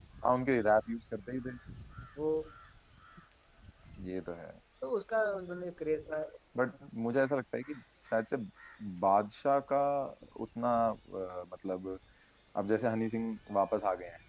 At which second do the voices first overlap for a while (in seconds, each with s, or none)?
none